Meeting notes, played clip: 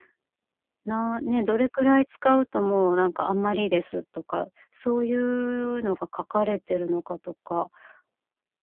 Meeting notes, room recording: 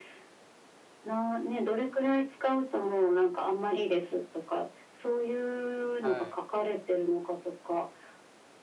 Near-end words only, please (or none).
はい。